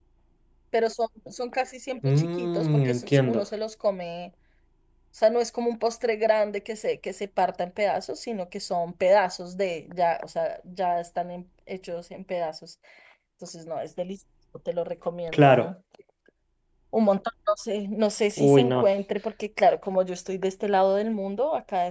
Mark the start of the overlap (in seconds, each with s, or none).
2.2 s